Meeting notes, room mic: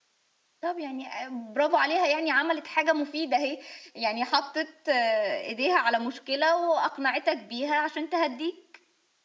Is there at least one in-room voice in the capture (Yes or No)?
Yes